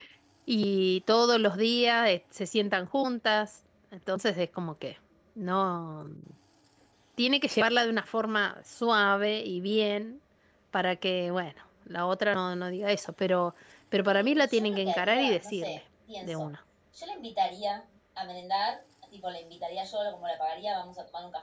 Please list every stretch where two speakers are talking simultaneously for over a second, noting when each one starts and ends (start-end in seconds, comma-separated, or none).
14.0-15.8